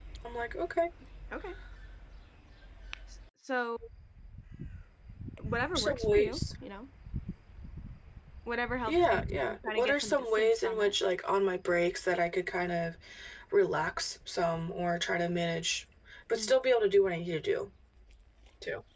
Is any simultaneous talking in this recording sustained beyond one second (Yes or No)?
Yes